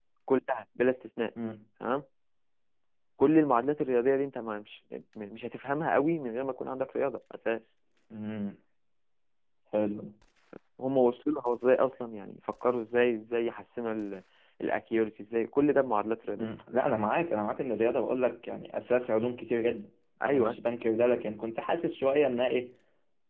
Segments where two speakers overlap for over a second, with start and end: none

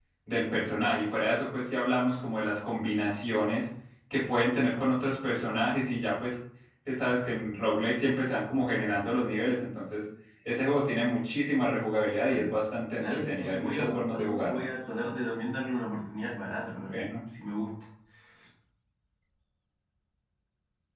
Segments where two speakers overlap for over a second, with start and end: 13.0-14.6

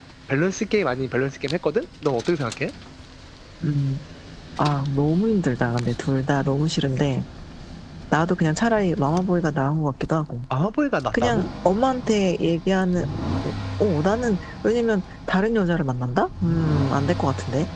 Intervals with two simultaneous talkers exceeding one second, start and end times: none

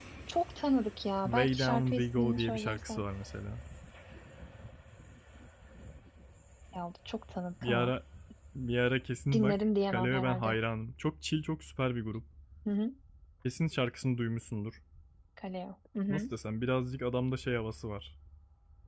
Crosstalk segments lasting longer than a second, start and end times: 1.2-3.0, 9.3-10.6

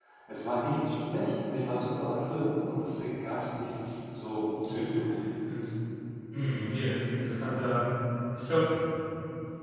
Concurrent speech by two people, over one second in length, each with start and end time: none

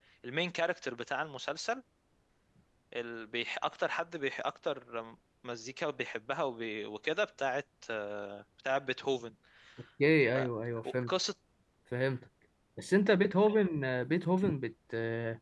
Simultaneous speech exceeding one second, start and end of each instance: none

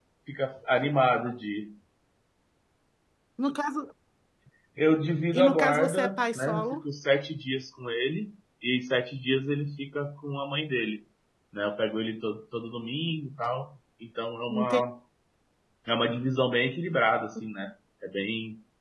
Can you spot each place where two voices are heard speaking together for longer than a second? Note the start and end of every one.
5.3-6.8

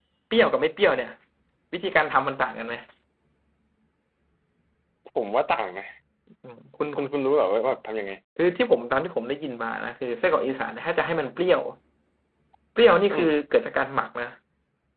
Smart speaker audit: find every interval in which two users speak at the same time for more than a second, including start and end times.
none

